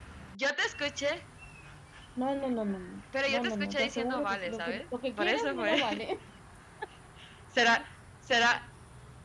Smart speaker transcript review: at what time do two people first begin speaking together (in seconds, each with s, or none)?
3.1 s